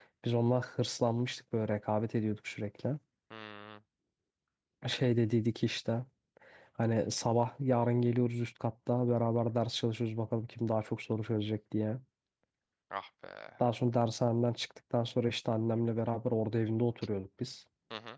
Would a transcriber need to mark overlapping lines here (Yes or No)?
No